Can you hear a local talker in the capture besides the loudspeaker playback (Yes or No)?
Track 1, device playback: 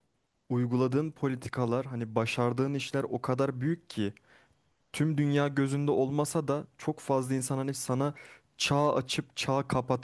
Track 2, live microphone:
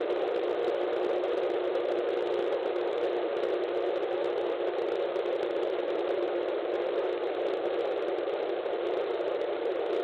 No